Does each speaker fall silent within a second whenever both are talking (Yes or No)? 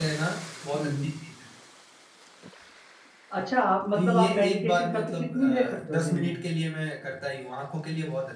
No